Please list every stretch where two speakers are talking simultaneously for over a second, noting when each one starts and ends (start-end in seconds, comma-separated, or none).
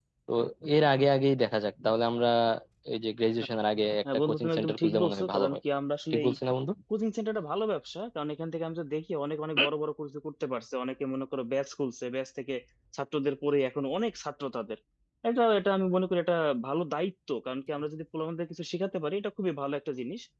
4.1-5.6